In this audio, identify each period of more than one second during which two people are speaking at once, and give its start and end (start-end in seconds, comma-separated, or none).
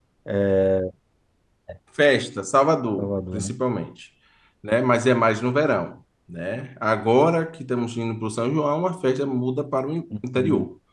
none